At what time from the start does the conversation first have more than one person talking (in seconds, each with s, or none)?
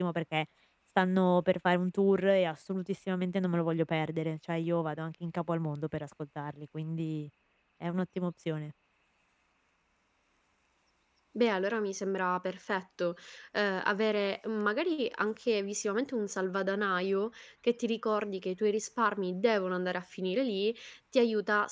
none